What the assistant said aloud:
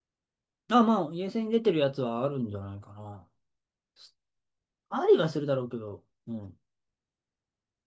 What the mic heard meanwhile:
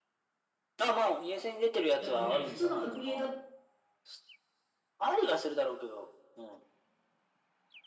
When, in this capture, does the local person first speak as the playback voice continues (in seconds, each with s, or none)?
2.0 s